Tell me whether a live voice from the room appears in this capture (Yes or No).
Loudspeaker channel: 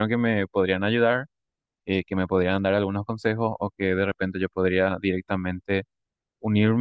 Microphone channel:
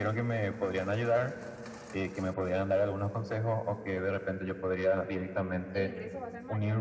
Yes